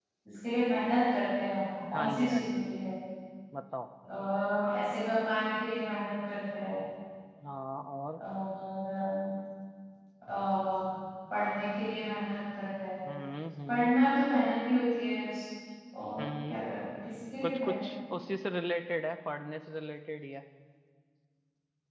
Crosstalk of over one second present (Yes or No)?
No